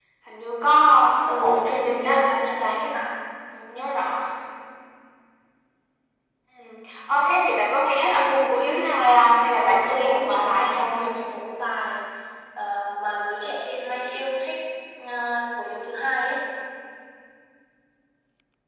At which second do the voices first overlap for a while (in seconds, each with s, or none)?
1.4 s